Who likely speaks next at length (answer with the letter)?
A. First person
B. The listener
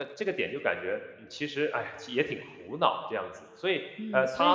B